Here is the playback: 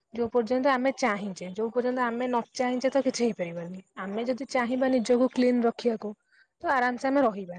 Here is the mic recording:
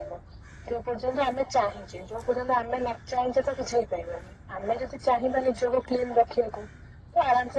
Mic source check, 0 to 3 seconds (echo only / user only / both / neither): echo only